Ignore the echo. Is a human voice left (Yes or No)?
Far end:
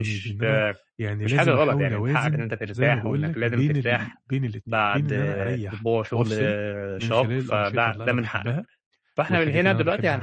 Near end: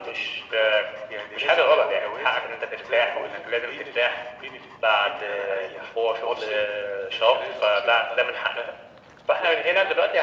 No